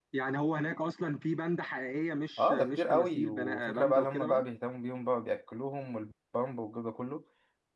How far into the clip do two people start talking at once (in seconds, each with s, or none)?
2.4 s